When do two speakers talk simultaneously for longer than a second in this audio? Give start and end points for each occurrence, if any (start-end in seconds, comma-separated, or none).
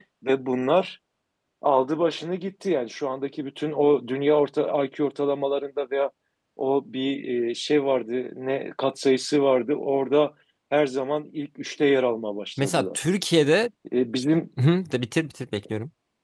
none